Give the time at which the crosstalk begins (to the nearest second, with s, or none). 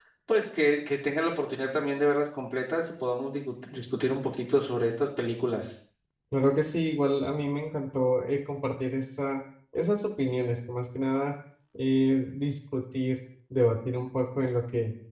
none